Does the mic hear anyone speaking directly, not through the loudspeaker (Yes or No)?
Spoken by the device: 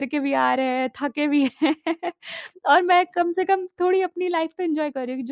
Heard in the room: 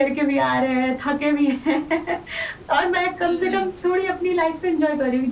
Yes